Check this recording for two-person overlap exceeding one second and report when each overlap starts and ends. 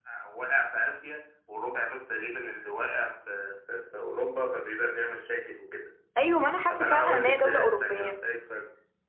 6.7-8.2

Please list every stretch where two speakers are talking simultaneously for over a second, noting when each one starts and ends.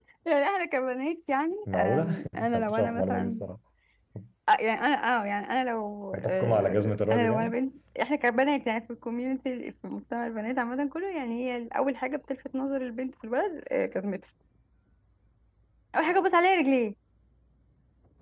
1.7-3.4, 6.1-7.6

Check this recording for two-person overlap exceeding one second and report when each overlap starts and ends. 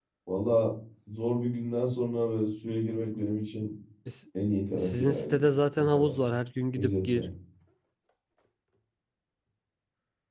4.8-6.3

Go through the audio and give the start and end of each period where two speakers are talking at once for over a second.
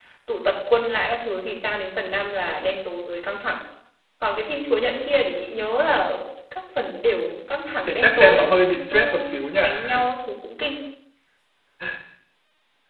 7.9-9.1

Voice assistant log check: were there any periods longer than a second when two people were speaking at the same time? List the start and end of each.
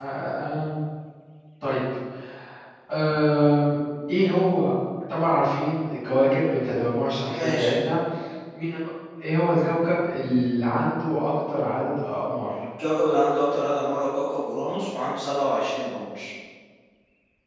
none

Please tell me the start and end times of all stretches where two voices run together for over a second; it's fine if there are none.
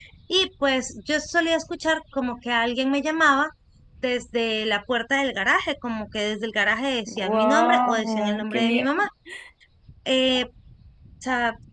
7.1-9.0

